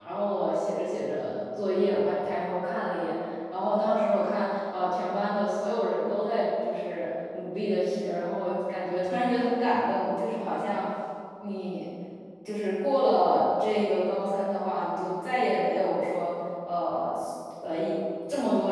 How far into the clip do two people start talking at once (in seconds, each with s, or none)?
none